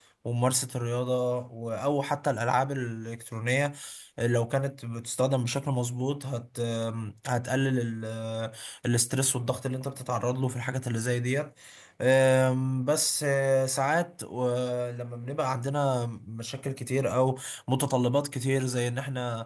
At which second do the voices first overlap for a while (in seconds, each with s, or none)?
none